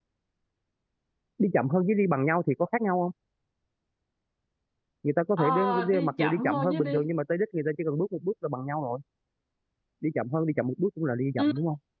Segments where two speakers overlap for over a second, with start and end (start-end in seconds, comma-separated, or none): 5.4-7.0